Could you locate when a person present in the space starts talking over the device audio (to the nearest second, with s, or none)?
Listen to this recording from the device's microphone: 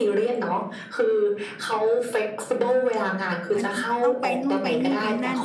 4 s